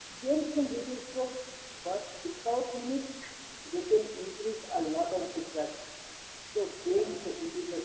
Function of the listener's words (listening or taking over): listening